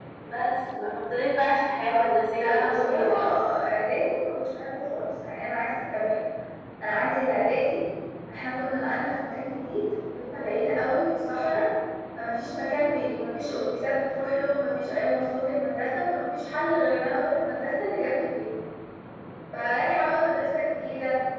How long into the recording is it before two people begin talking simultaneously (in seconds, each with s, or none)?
1.9 s